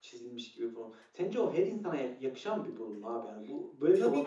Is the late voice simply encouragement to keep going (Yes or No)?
No